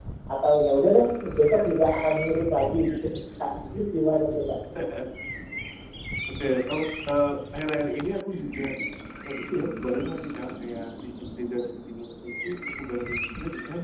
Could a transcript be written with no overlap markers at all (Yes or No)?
Yes